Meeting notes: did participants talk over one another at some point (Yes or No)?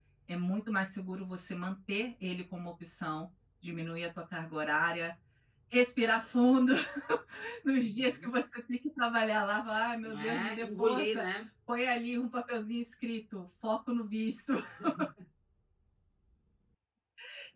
Yes